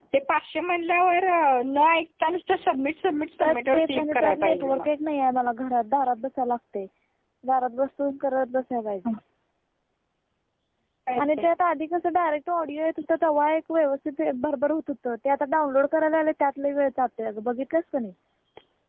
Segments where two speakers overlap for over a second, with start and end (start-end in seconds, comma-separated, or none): 3.4-4.9